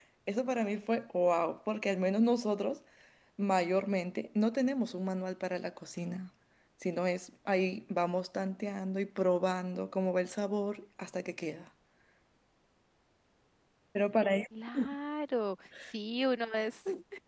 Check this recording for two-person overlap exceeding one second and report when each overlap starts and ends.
none

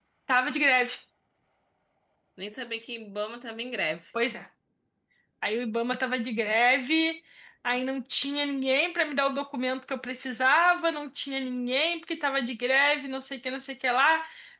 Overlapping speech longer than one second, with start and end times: none

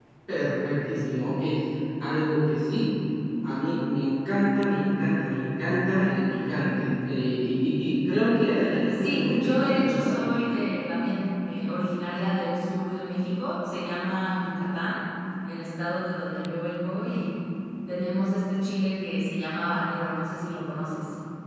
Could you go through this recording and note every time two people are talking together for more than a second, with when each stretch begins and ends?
8.9-10.2

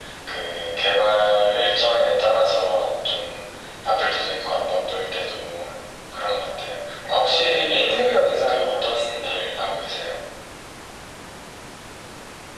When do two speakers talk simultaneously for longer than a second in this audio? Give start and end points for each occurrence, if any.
7.2-9.4

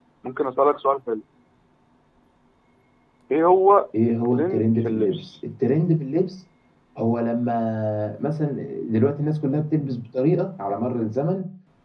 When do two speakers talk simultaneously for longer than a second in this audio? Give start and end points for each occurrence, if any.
4.1-5.3

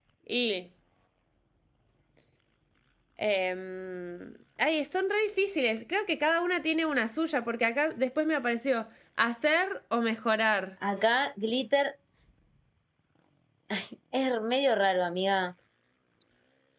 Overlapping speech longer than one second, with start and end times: none

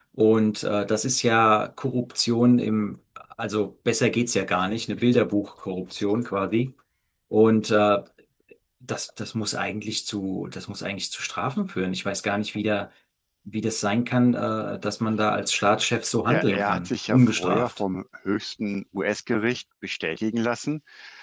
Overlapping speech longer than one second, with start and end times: 16.3-17.7

